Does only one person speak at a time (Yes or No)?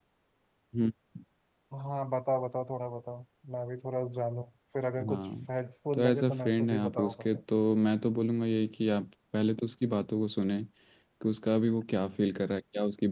No